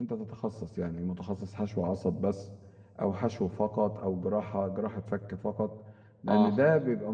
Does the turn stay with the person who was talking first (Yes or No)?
Yes